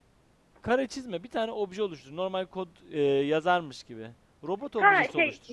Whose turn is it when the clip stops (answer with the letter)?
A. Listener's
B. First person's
A